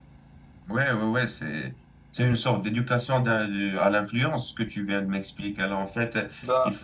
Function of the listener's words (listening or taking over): listening